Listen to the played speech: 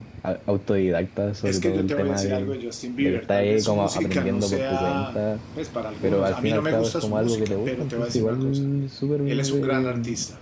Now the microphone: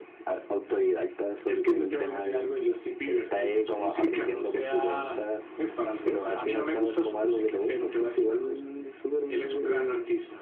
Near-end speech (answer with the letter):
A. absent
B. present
A